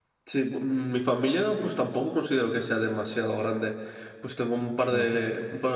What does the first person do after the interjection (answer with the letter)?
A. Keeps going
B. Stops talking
A